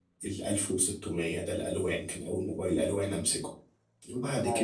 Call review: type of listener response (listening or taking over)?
listening